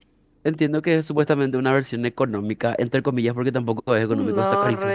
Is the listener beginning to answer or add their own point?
Yes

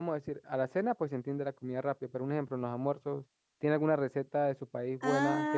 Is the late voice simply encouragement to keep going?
No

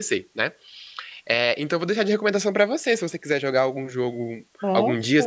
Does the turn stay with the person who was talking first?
Yes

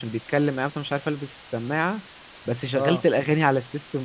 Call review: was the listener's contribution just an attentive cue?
Yes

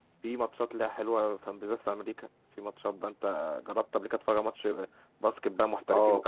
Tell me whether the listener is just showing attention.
No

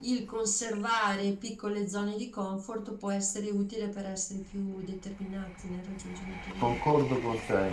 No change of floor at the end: No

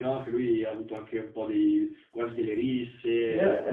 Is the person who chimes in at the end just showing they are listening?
No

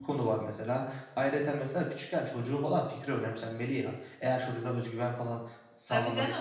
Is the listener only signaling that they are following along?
No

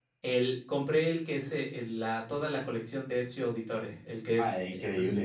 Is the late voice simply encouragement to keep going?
No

